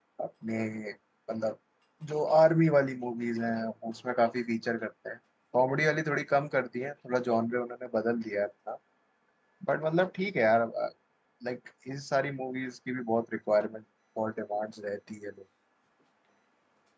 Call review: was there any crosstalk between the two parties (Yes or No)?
No